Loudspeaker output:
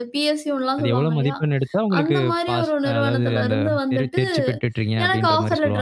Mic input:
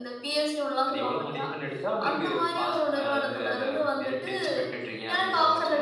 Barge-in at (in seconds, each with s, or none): none